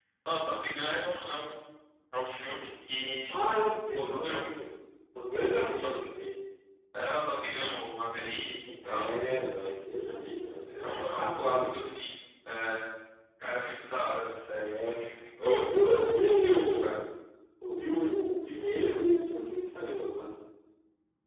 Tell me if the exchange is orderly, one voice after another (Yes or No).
No